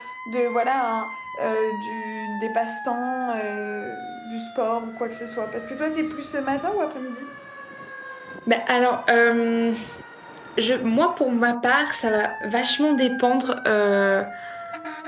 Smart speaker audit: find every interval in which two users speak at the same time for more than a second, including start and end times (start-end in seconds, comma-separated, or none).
none